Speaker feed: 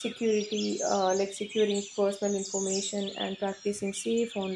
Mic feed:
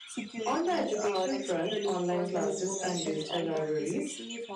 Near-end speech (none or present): present